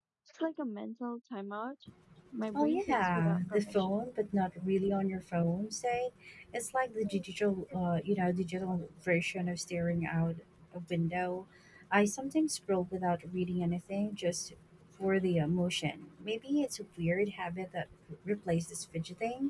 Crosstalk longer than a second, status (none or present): present